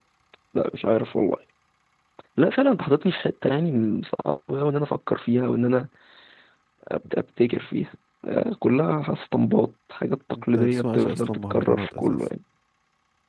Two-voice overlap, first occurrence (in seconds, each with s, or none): 10.3 s